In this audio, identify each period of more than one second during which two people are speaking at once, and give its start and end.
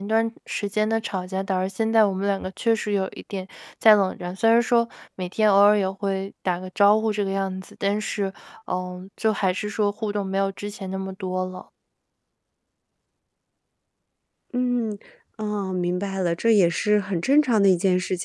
none

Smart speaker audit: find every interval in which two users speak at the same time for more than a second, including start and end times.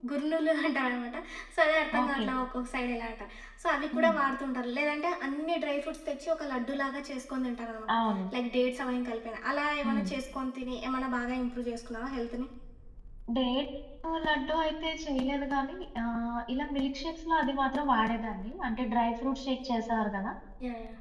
none

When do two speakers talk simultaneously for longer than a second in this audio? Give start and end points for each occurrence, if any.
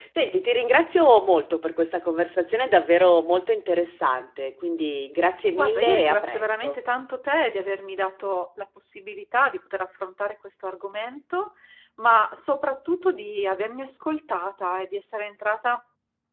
5.5-6.8

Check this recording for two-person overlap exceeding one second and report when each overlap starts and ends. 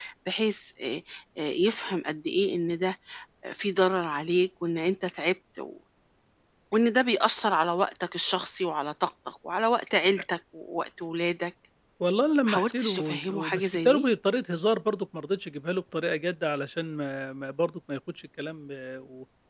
12.5-14.1

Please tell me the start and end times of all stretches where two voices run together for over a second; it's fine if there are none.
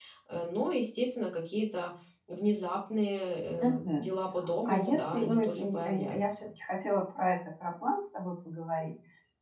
4.6-6.5

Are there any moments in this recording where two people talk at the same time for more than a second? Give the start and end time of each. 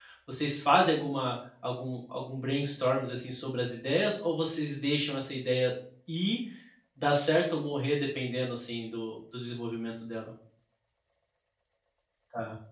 none

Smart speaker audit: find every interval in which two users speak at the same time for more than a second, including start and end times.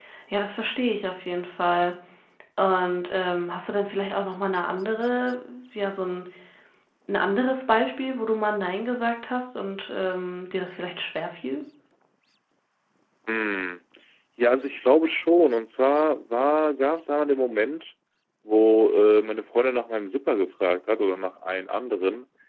none

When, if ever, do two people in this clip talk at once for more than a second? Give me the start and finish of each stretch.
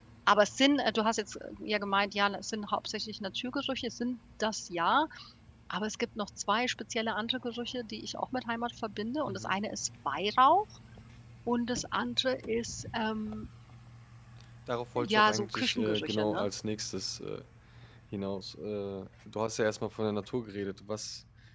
15.0-16.4

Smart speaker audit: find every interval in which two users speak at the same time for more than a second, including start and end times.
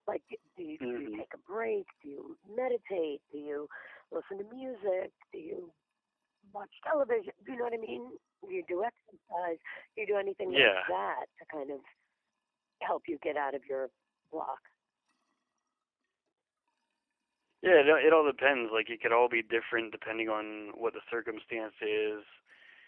none

